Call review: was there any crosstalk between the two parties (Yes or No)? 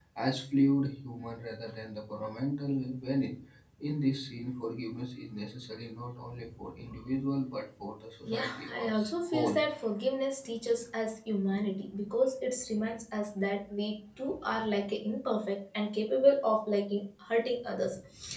Yes